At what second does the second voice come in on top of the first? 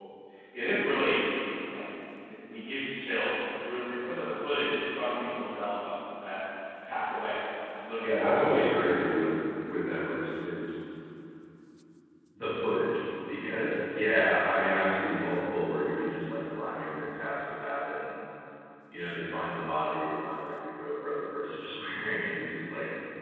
8.0 s

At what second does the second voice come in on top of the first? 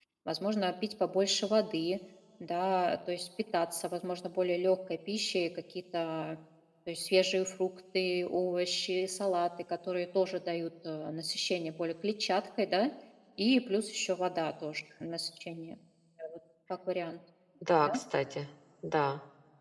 none

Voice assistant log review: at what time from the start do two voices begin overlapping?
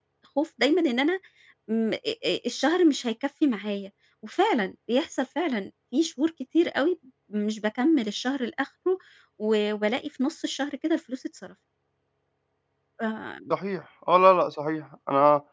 none

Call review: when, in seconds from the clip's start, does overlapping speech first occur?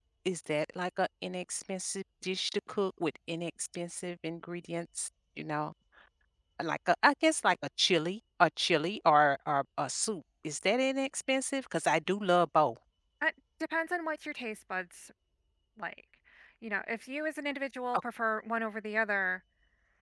none

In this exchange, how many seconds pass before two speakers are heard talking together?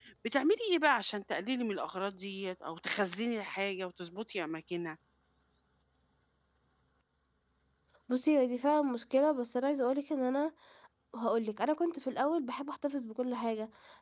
none

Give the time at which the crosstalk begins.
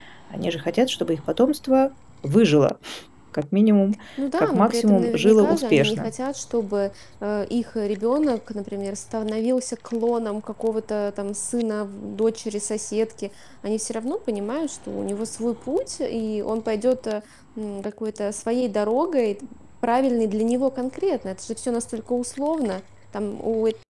4.2 s

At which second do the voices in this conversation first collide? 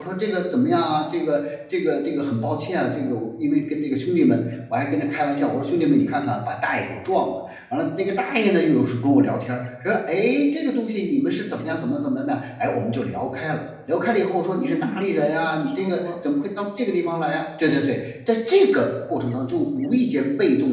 14.6 s

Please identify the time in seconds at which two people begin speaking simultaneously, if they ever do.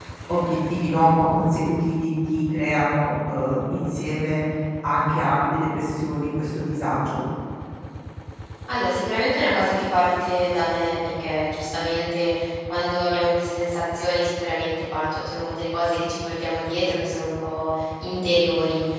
none

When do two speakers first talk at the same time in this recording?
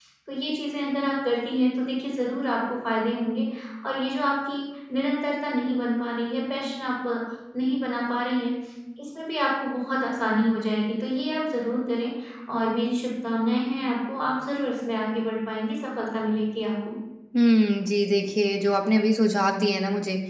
none

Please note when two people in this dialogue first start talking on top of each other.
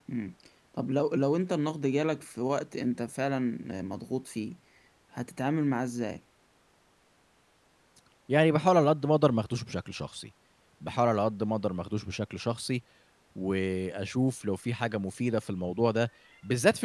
none

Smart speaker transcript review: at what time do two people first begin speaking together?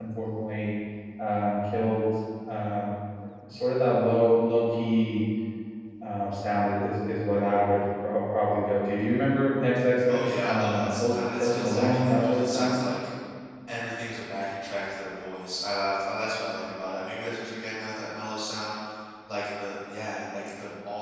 10.1 s

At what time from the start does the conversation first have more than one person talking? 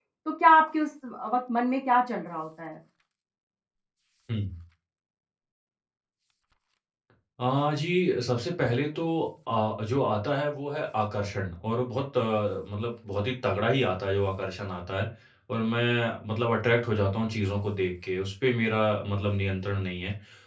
none

